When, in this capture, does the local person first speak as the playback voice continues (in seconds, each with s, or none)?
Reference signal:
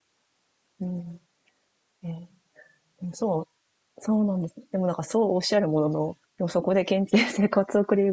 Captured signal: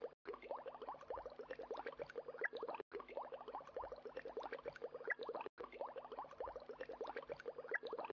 none